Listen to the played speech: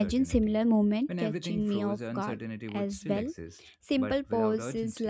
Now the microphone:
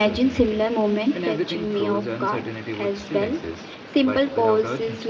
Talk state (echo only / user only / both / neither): echo only